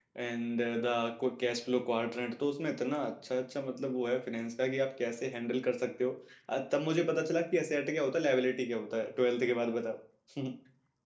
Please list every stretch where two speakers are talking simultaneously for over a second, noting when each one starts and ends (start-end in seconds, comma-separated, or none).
none